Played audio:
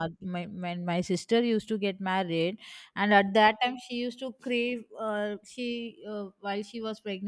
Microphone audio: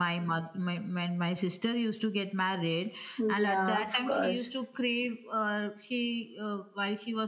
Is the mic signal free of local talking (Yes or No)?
No